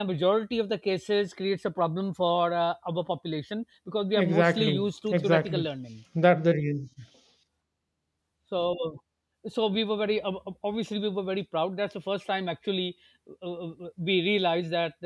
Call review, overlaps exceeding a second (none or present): present